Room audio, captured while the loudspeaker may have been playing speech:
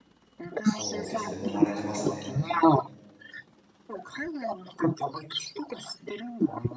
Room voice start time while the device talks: 0.6 s

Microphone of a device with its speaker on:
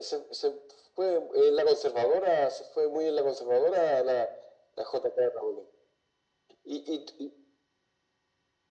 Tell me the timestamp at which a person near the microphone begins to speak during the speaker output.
none

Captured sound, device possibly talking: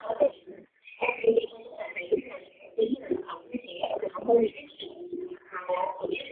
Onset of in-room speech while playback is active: none

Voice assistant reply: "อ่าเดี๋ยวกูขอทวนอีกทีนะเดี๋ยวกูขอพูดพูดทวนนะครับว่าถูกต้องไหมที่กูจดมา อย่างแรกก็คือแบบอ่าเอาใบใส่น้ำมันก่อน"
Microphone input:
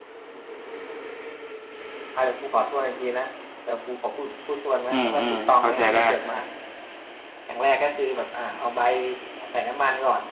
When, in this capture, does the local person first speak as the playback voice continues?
4.9 s

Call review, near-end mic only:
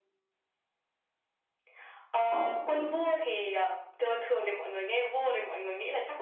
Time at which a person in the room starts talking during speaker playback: 2.3 s

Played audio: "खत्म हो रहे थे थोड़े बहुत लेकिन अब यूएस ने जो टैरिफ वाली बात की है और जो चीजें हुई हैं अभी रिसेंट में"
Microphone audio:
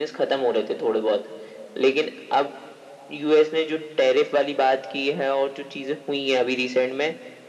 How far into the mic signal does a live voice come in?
none

